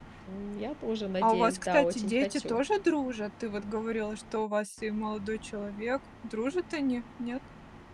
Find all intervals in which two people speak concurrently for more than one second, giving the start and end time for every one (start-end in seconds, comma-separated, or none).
1.2-2.6